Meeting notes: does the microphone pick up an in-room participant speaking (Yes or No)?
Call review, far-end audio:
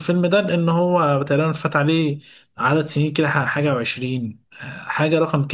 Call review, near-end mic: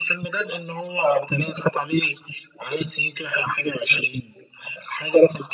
No